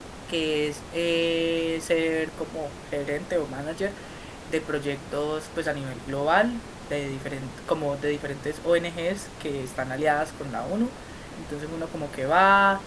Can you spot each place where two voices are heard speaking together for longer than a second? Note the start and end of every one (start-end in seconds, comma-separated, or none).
none